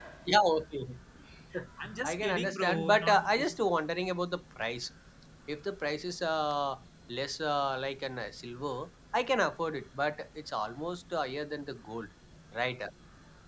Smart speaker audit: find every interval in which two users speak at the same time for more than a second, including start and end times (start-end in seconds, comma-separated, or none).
2.0-3.6